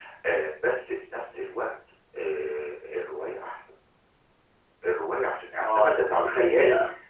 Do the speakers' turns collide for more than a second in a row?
Yes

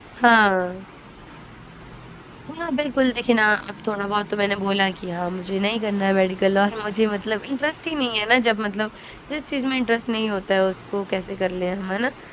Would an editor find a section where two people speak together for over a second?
No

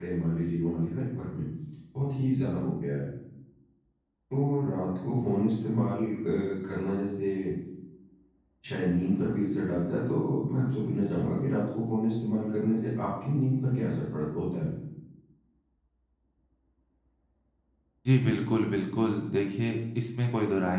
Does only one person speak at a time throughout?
Yes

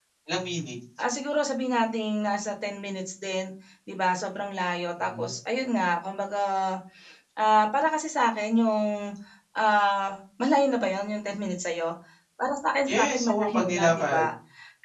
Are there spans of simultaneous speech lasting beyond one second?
Yes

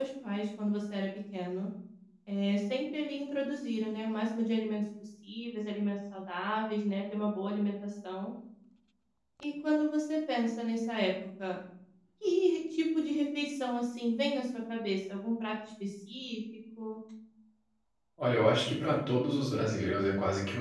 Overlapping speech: No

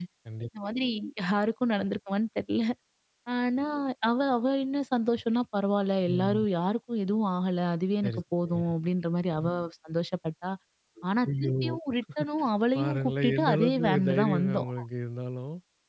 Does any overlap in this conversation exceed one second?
Yes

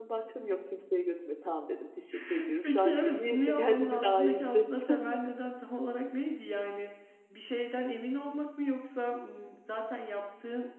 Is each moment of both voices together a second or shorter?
No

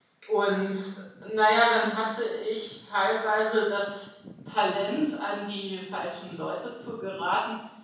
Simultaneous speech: No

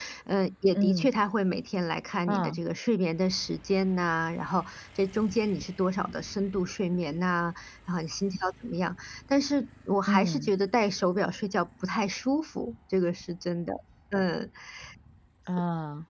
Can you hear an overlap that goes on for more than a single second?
No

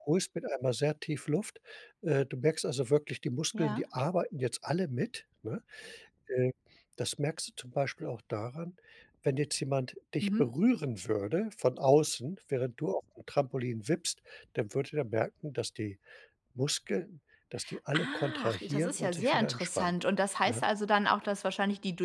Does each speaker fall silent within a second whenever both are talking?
No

